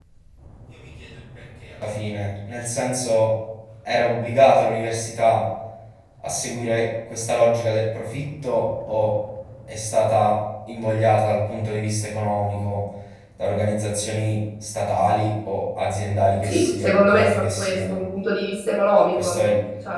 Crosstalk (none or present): present